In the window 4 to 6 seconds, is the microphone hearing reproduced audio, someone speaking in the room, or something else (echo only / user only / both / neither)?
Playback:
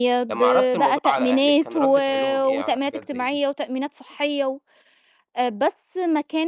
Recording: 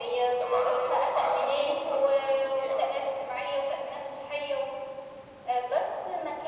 echo only